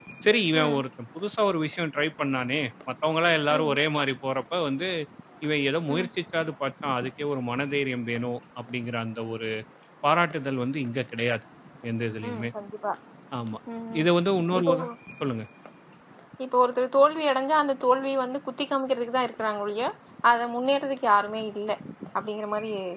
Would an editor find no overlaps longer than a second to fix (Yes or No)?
Yes